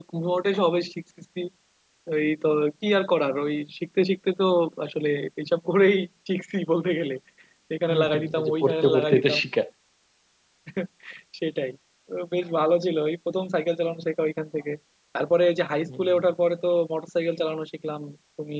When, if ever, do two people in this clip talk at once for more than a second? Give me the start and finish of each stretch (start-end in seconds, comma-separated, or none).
7.9-9.4